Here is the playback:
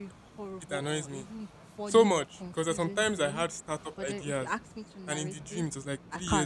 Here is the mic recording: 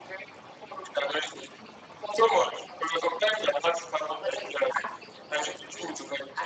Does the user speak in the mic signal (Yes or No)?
No